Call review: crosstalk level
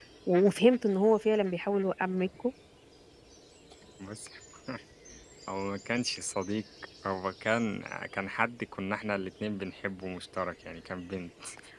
none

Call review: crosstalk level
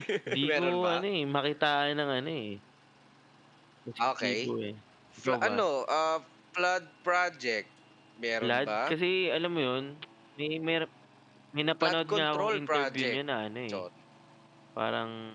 present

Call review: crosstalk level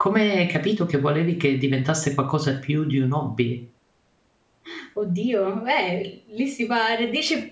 none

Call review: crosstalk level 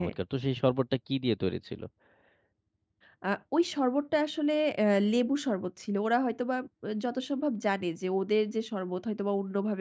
none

